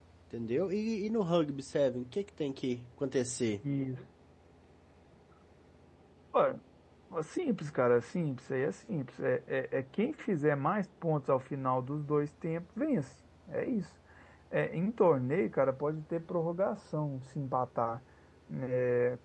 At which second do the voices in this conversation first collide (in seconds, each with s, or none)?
none